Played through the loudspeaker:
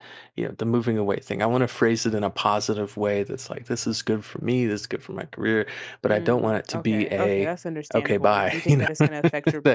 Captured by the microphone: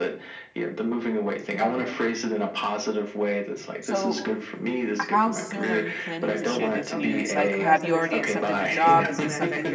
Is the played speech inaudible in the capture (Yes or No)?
No